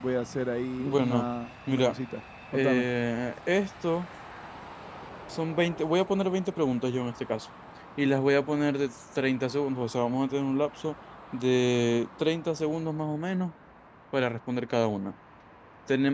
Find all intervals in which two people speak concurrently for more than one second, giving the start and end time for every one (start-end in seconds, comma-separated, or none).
none